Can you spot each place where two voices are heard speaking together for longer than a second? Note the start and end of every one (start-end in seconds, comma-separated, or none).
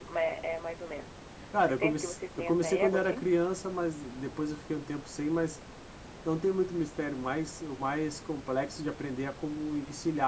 1.7-3.2